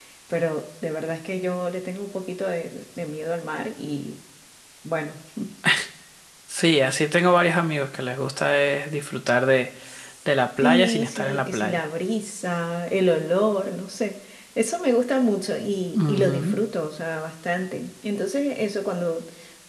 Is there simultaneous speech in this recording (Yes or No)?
Yes